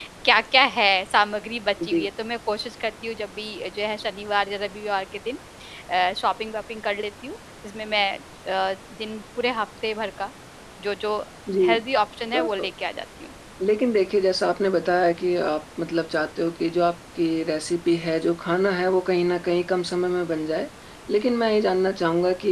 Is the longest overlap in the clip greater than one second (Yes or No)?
No